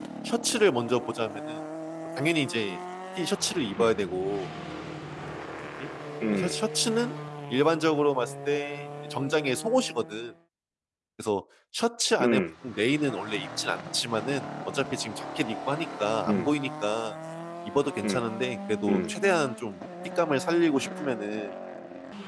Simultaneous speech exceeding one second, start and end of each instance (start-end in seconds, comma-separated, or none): none